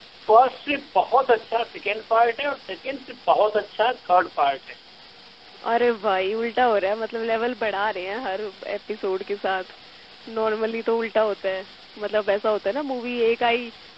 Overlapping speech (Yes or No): No